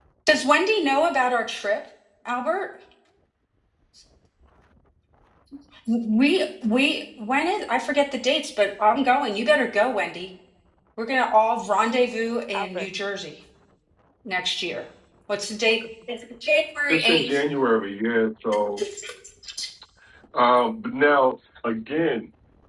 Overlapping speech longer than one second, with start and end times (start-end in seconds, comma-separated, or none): none